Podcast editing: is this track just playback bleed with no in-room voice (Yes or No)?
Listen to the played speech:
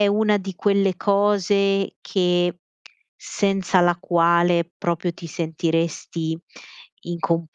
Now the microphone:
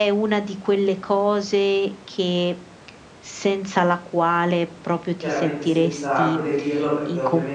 No